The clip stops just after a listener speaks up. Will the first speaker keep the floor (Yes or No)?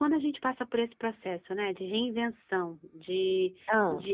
Yes